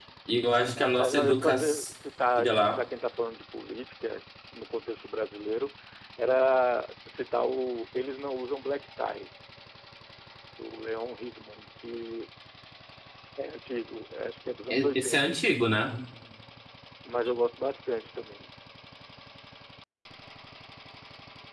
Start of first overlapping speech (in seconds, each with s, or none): 0.7 s